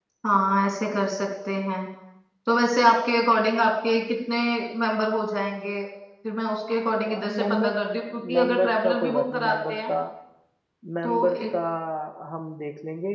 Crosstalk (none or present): present